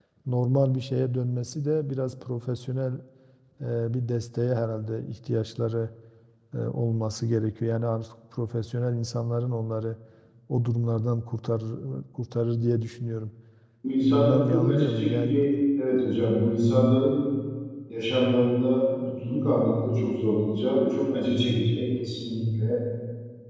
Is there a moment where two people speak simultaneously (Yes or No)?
Yes